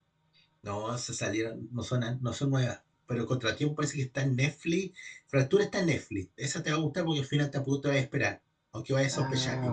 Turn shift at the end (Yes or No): Yes